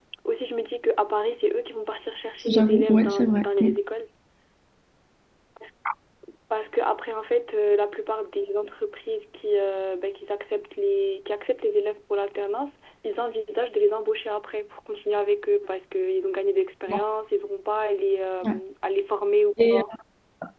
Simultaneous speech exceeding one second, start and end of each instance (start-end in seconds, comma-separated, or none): 2.5-3.7